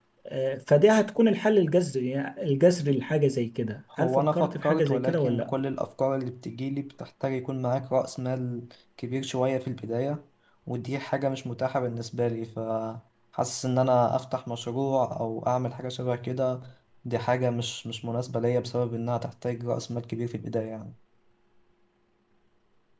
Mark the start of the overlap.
3.9 s

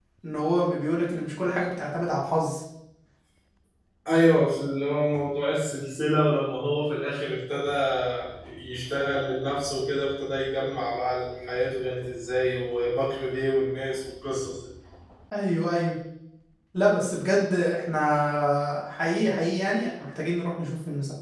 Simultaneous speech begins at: none

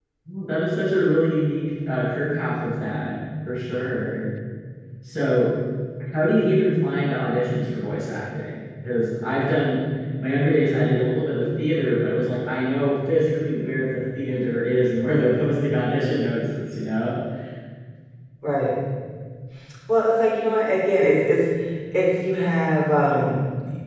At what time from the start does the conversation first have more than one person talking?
none

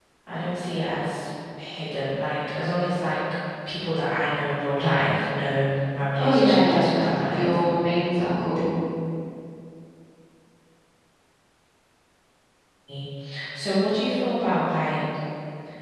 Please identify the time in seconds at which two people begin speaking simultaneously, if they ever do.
6.2 s

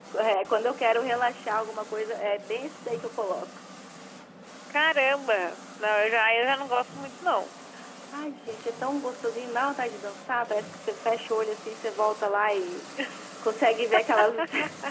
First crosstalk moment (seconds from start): none

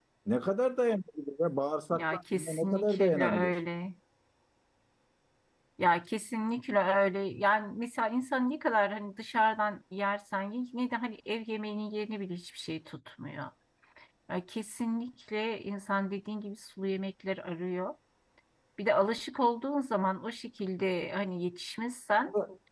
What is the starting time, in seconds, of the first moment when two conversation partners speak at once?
1.9 s

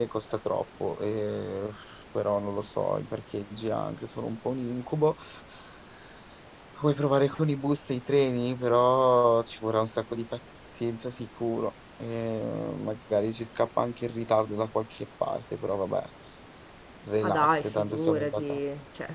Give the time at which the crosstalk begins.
17.2 s

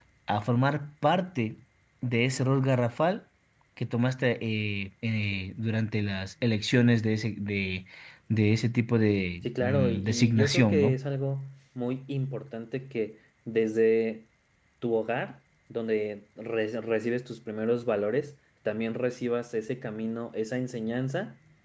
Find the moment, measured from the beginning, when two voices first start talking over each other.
9.4 s

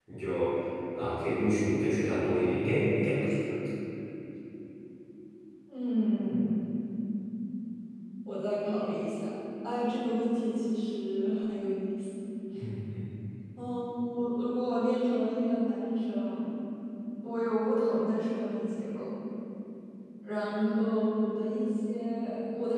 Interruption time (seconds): none

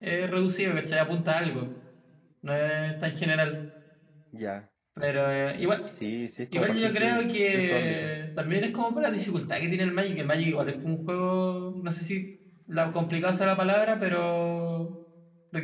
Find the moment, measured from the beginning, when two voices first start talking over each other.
6.5 s

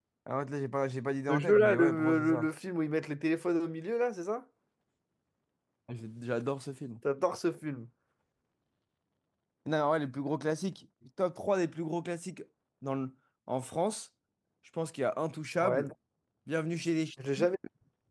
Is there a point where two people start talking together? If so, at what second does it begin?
1.3 s

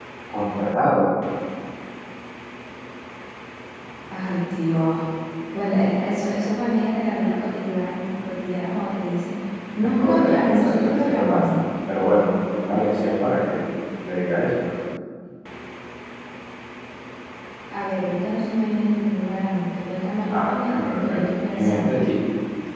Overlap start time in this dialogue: 10.0 s

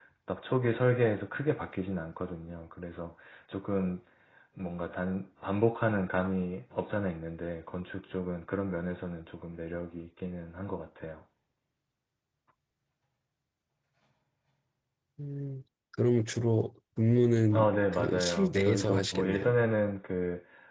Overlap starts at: 17.5 s

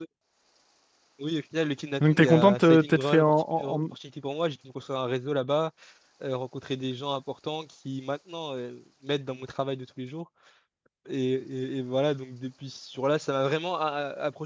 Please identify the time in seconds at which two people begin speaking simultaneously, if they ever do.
2.0 s

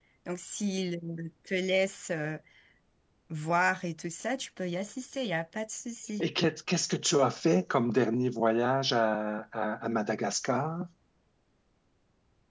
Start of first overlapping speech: none

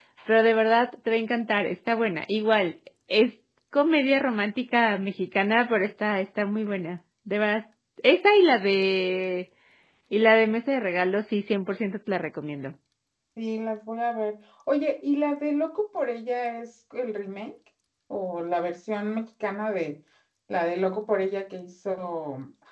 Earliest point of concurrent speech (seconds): none

